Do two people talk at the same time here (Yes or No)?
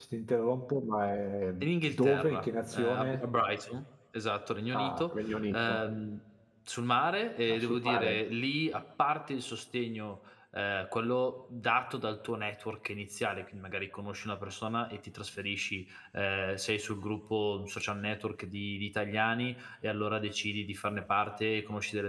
Yes